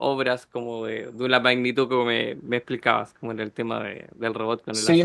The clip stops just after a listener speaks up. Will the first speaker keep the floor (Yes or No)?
No